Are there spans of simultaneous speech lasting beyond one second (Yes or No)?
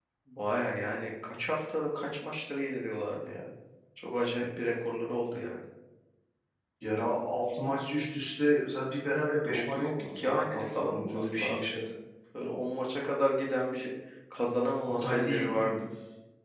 Yes